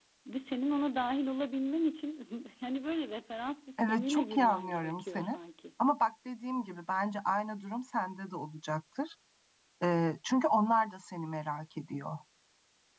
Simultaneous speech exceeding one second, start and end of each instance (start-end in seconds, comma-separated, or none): 3.9-5.4